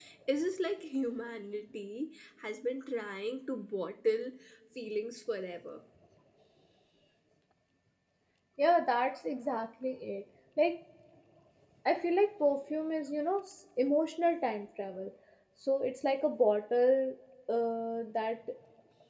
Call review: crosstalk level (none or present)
none